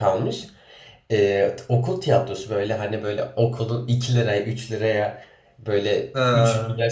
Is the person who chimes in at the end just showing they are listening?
Yes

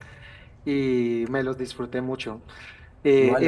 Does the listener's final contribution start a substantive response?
Yes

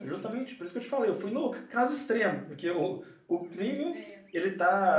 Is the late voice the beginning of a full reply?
No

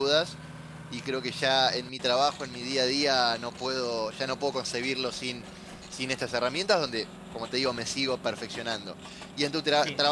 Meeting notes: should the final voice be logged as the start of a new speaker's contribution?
No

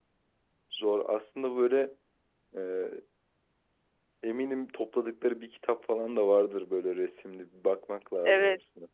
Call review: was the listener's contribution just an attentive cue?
No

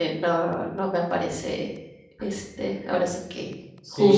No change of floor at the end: No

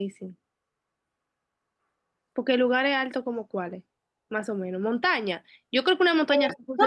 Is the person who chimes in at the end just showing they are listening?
No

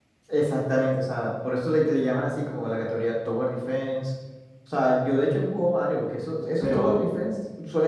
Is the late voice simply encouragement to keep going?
Yes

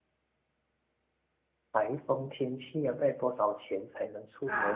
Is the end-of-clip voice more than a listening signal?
Yes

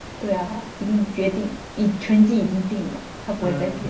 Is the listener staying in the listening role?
No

